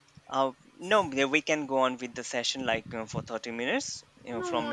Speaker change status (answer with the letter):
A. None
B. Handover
B